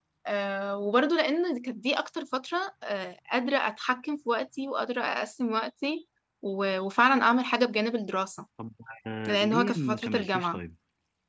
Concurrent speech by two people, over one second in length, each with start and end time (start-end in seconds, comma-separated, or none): 9.3-10.6